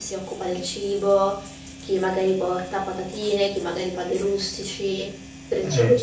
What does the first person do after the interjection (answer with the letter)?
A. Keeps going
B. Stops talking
B